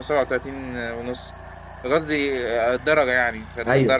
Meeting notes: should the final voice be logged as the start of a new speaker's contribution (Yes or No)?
Yes